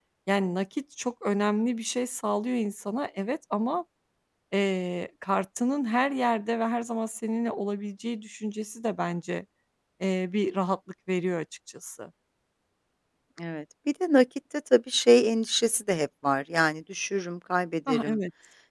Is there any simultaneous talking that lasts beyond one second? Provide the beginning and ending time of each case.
none

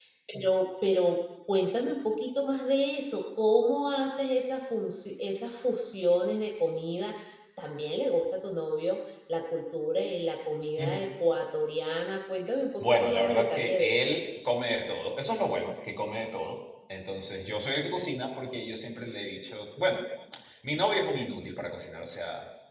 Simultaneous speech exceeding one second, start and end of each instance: 12.8-14.1

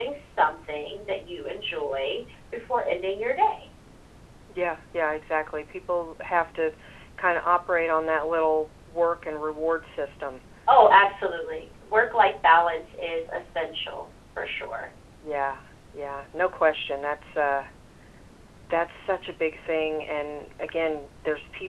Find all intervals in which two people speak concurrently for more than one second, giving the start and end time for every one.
none

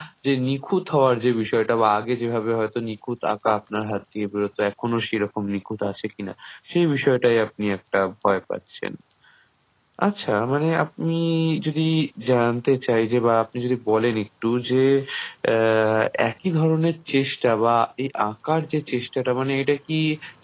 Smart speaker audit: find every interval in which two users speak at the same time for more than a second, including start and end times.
none

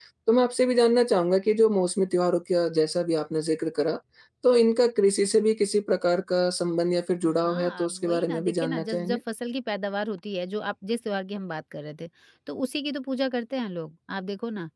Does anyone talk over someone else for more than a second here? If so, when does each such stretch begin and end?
7.4-9.2

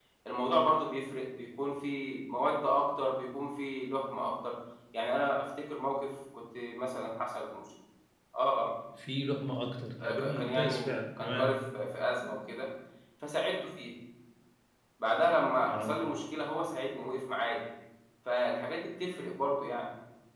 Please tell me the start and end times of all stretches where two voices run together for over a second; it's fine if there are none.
10.0-11.5

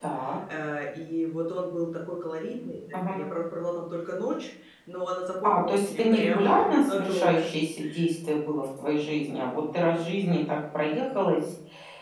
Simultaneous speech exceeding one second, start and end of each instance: 5.4-7.5

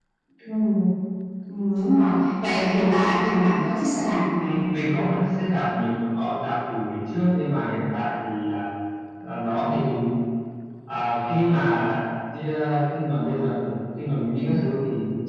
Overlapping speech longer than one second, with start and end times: none

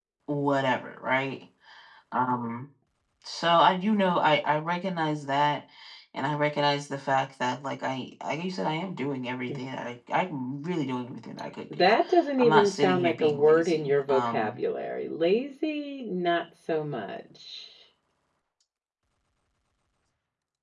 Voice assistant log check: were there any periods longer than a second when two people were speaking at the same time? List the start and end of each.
12.4-14.6

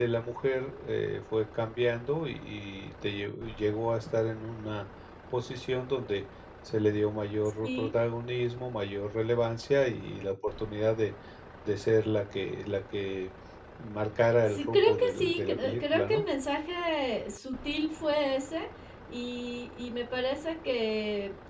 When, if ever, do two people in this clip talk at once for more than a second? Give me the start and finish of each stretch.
14.6-16.2

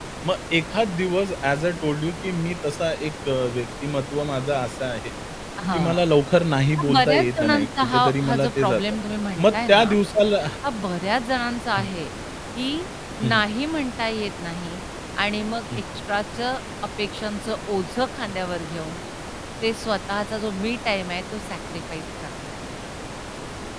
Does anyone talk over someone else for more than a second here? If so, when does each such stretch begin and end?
6.8-8.8

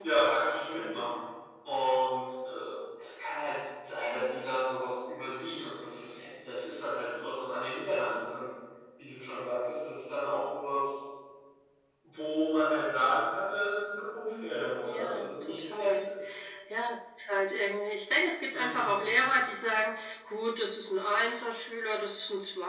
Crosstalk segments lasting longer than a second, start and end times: 14.8-16.1

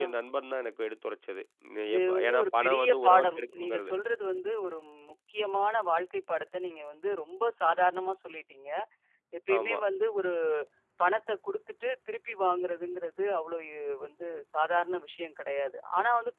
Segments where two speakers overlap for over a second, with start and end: 1.9-3.9

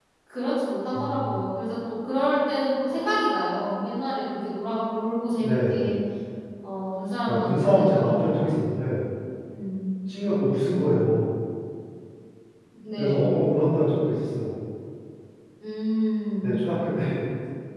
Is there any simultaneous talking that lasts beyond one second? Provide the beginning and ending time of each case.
7.3-8.5

